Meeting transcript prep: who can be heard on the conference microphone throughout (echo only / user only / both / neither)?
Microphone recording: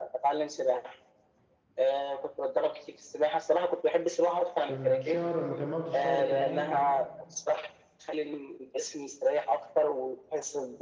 both